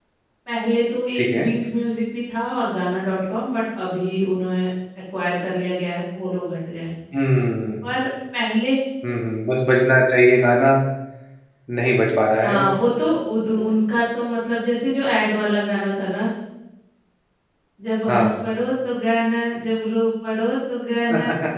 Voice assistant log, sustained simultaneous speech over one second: none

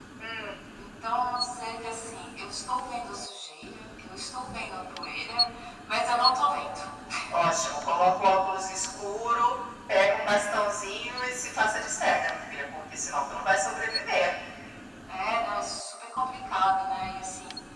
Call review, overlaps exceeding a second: none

